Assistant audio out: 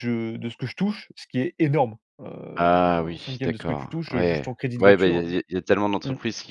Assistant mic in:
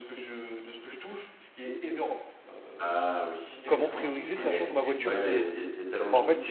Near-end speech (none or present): present